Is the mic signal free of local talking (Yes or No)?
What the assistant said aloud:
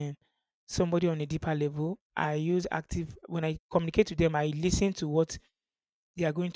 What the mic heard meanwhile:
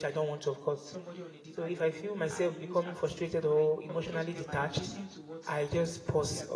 No